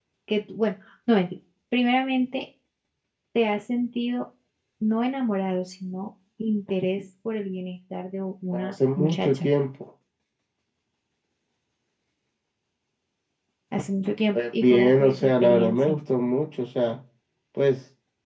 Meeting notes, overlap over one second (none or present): present